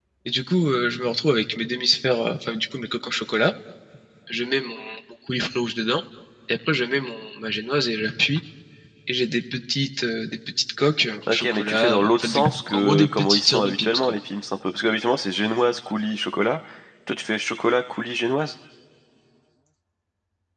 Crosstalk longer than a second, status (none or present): present